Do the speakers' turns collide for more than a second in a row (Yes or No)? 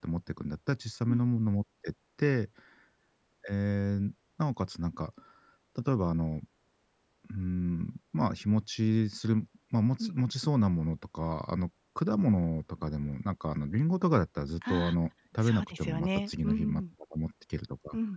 Yes